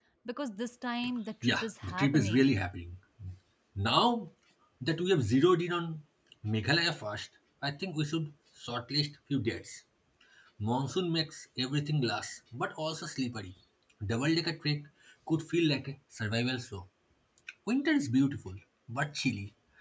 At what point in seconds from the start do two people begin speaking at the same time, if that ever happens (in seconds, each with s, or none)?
1.4 s